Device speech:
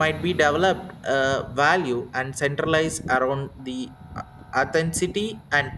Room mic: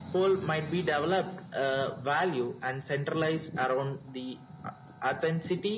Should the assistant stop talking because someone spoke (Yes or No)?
No